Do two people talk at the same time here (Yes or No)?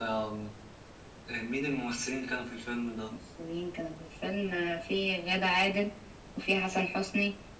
No